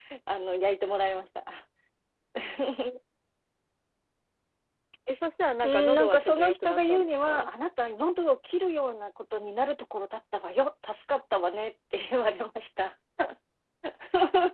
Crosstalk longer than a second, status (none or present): present